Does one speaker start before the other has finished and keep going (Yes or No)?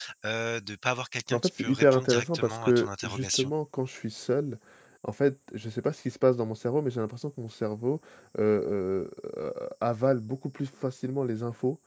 Yes